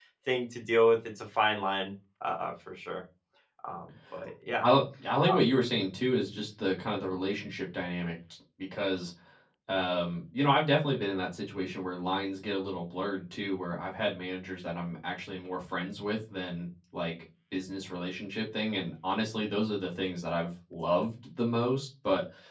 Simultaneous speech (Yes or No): No